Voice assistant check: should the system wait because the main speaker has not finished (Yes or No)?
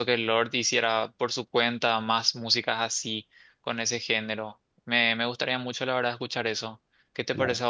No